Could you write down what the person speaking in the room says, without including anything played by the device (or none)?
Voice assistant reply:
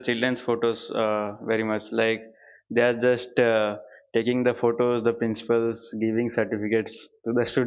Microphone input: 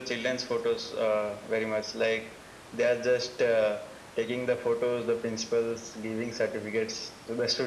none